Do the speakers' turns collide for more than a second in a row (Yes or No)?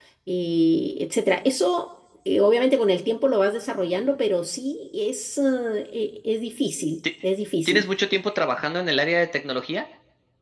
No